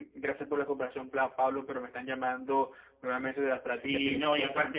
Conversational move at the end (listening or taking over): taking over